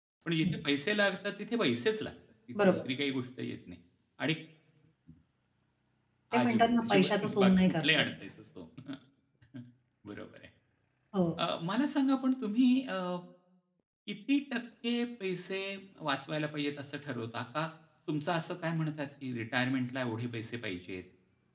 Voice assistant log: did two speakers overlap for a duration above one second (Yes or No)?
Yes